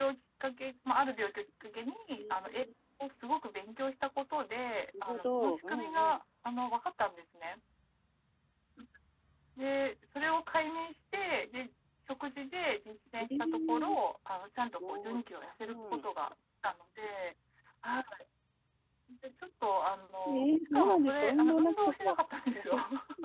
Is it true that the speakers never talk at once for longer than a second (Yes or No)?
No